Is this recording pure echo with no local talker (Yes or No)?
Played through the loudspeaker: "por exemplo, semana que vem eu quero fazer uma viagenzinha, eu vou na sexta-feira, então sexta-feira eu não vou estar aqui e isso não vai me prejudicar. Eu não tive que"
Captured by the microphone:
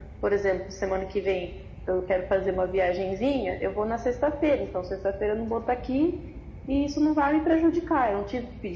Yes